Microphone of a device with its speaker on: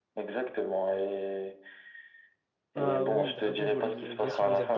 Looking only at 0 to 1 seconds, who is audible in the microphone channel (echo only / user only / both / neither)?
echo only